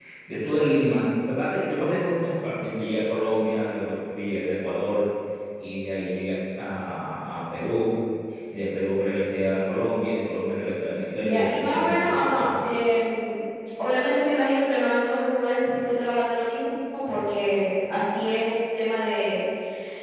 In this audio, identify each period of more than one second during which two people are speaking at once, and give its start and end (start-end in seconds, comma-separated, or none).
11.2-12.5